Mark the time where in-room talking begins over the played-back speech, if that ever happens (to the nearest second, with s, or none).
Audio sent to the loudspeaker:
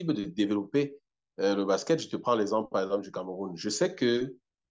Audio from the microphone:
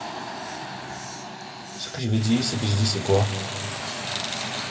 2 s